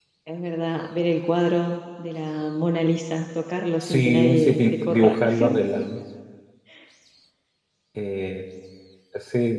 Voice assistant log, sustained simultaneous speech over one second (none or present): present